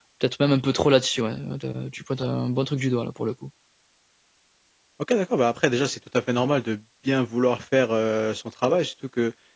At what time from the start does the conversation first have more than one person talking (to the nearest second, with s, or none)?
none